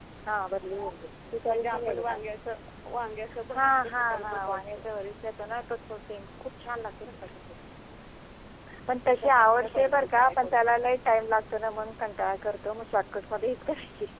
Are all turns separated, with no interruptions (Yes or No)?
No